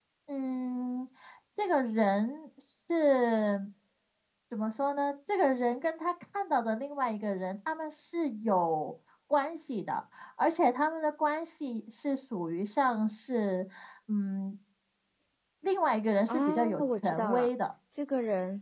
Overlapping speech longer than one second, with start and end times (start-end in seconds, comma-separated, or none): 16.3-17.5